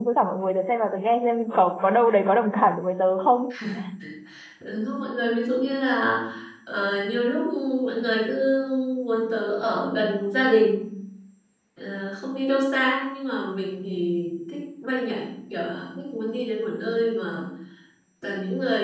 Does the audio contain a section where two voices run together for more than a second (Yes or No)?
No